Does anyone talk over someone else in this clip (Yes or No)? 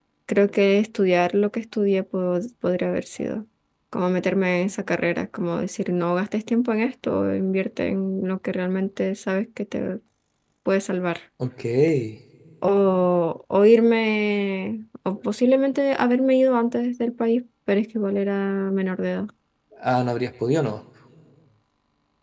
No